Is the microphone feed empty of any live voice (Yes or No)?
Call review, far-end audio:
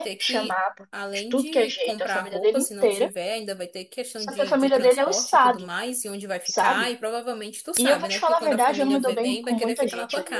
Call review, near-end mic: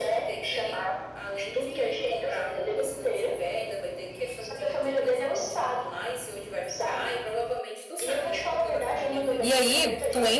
No